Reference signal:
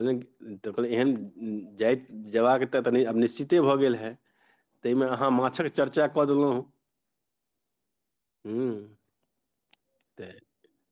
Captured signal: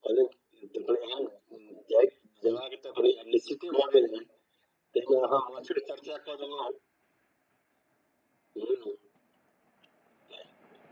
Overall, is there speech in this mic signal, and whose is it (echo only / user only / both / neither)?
echo only